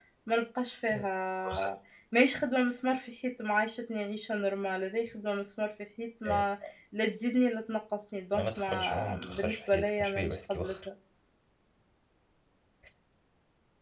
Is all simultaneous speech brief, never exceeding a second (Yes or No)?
No